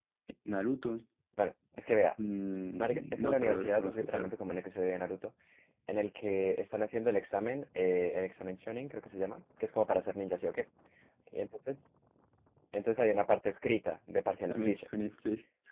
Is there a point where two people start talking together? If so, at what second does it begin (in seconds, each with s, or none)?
2.8 s